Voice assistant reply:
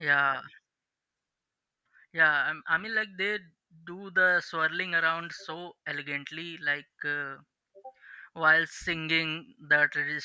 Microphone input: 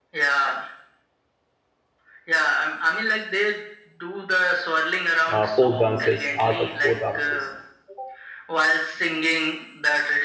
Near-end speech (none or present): present